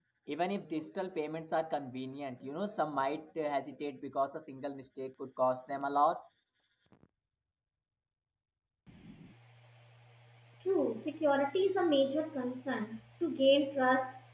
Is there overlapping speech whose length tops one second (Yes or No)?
No